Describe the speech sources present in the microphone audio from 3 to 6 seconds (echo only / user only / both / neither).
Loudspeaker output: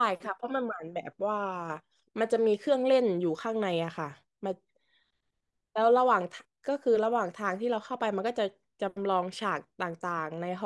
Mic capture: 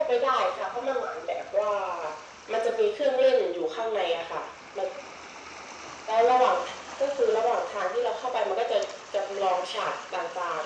echo only